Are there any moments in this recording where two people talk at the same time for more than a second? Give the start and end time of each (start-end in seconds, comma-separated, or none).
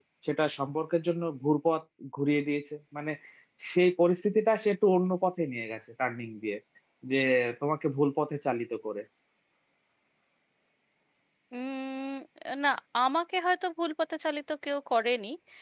none